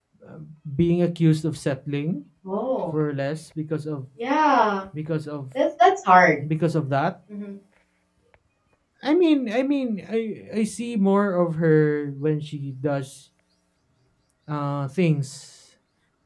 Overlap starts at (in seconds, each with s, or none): none